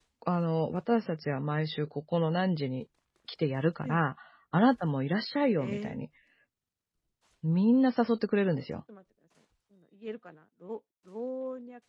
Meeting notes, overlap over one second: none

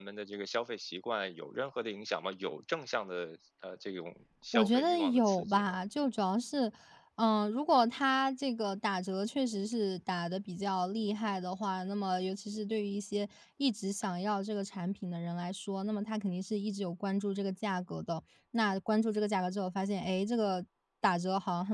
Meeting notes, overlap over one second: present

